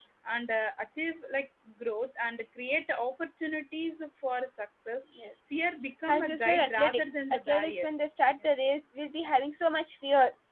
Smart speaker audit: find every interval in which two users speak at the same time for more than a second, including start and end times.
6.1-7.9

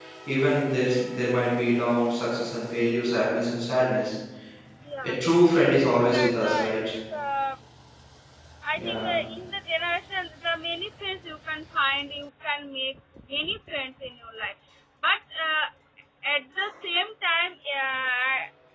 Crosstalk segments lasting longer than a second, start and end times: 5.6-6.9

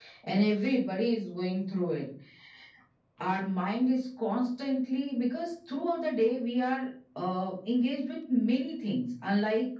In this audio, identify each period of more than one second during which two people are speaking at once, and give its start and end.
none

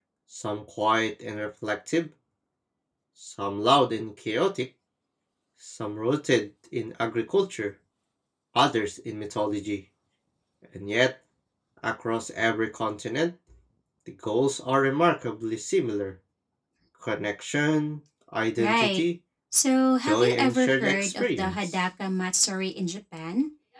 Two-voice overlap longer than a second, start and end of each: 20.0-21.8

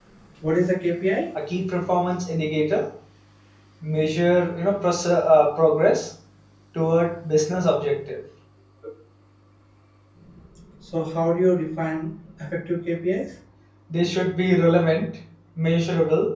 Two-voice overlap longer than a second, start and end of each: none

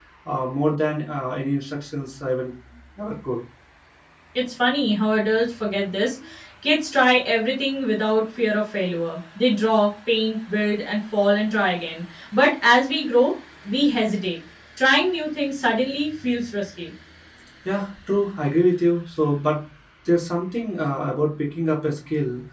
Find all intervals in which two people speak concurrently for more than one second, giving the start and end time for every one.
none

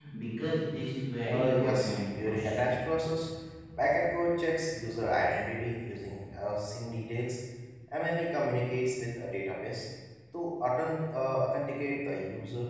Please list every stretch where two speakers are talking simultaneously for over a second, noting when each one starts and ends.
1.2-2.7

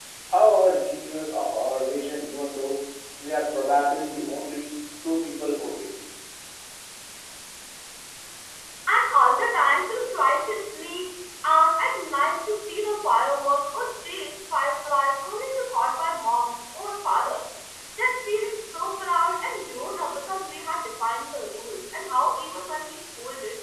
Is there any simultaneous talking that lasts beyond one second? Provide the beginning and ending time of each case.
none

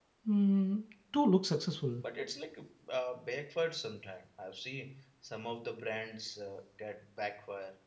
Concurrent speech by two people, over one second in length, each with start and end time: none

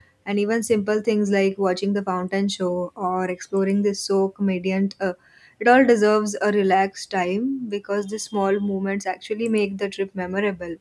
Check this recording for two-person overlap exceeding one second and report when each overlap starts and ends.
none

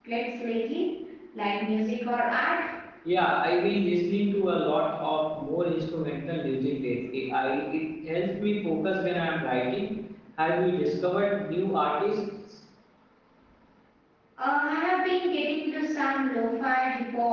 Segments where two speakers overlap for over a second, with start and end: none

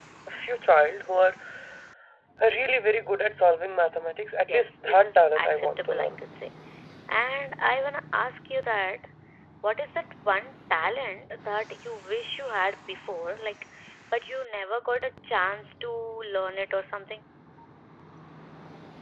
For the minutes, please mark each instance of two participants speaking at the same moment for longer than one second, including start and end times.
4.4-6.2

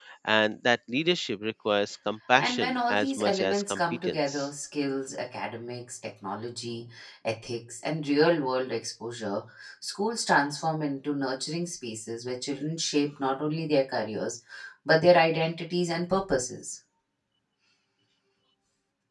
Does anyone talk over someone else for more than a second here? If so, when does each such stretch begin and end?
2.4-4.5

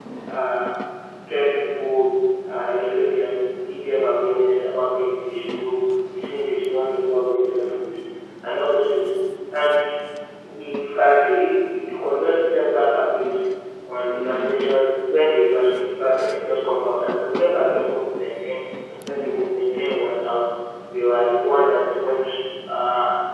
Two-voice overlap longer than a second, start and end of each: none

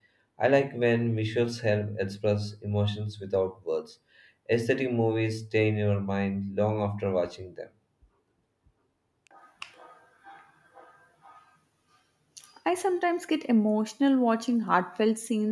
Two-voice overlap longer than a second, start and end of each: none

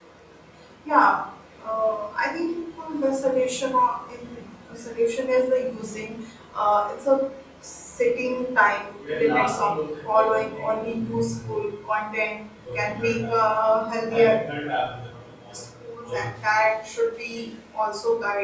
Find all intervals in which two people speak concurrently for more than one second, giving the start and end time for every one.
none

